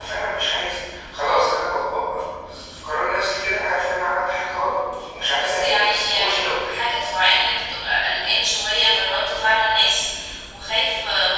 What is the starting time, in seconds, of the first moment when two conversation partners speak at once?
5 s

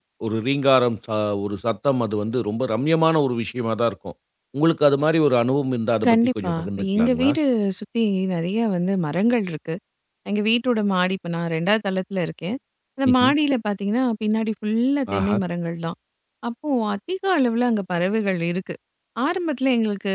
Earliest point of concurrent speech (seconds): 6 s

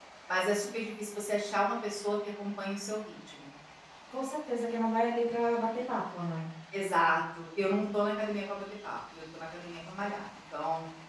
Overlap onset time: none

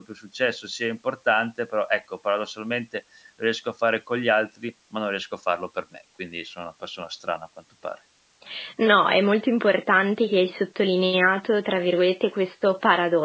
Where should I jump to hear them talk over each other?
none

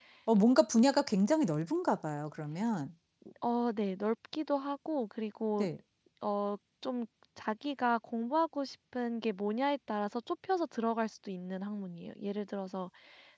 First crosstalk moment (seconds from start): none

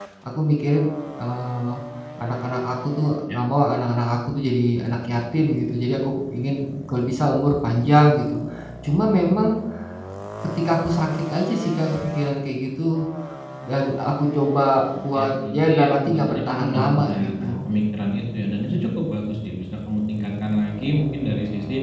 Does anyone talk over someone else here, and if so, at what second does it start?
15 s

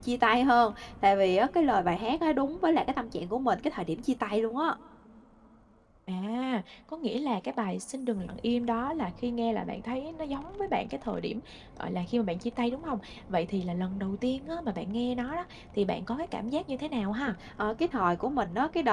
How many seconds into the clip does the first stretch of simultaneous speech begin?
none

